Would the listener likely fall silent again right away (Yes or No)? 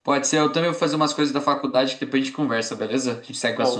No